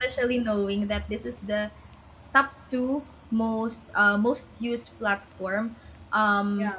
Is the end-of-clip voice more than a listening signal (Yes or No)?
No